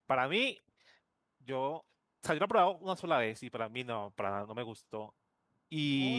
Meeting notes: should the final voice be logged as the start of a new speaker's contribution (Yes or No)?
Yes